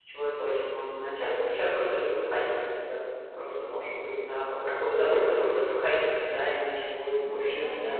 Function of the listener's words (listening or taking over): taking over